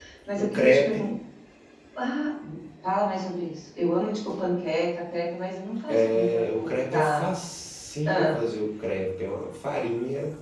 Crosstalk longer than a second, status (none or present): present